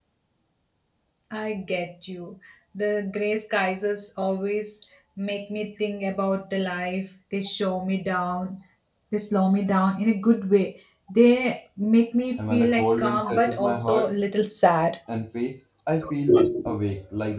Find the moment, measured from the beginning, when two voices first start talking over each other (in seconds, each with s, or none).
12.4 s